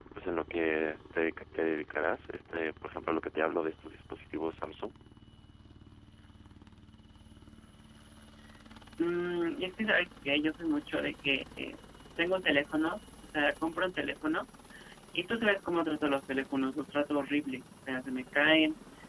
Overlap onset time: none

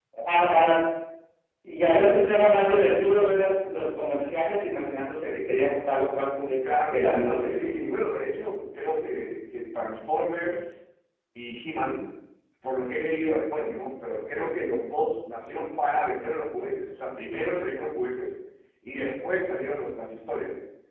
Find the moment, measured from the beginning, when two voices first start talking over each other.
6.6 s

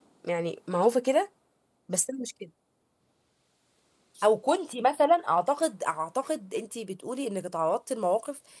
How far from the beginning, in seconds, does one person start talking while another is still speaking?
none

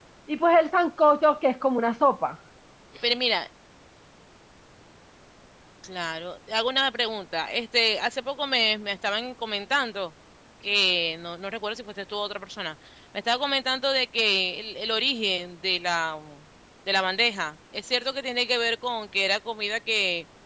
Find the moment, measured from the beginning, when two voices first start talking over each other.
none

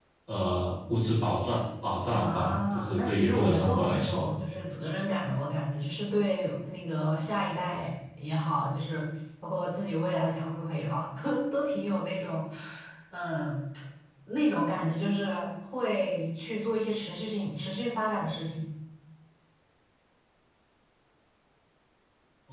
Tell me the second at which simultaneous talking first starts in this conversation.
2.1 s

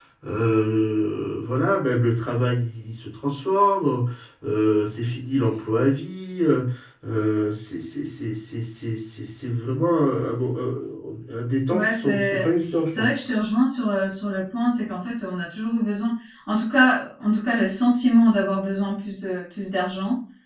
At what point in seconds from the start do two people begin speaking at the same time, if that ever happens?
11.7 s

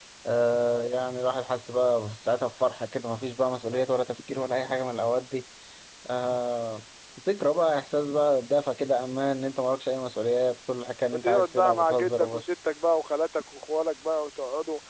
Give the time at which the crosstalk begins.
11.1 s

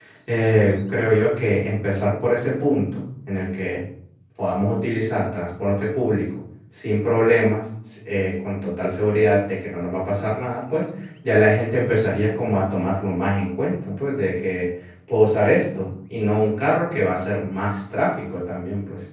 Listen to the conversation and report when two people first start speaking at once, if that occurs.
none

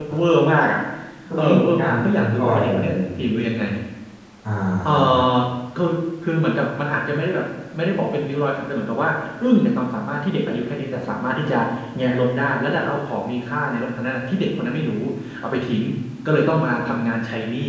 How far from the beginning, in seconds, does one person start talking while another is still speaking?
1.4 s

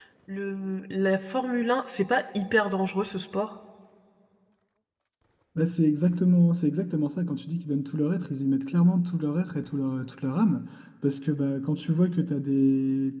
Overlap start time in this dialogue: none

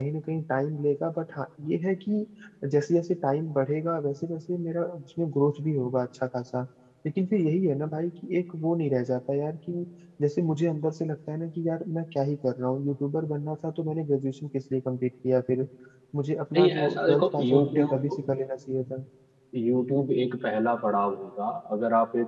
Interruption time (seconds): 16.6 s

